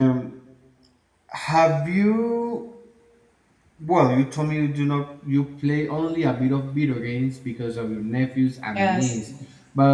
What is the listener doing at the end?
listening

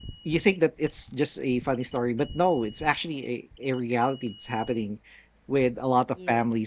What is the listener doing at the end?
listening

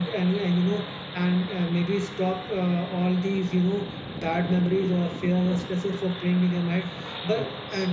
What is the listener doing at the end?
listening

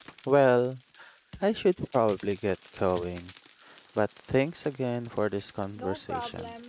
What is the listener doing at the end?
taking over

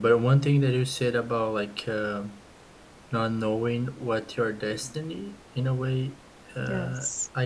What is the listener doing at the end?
listening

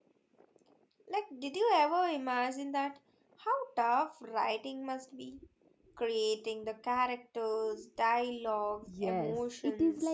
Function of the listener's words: taking over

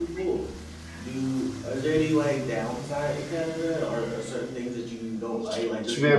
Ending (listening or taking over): taking over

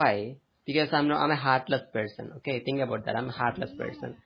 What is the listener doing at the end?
listening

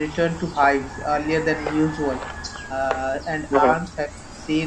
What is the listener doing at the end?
listening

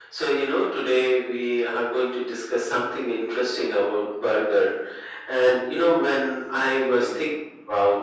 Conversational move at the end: listening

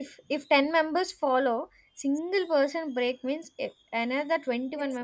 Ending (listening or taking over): taking over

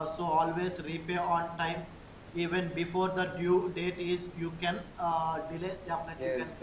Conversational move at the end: taking over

